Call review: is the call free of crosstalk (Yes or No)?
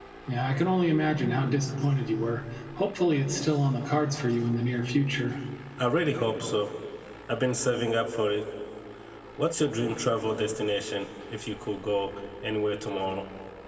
Yes